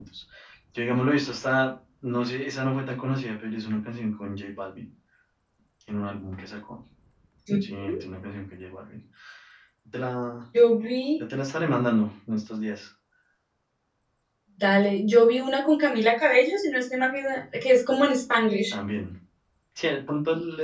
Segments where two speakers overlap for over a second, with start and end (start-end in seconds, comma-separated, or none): none